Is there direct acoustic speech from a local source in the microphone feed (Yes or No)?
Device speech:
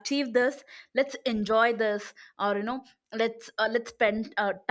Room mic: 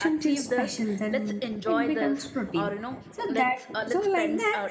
Yes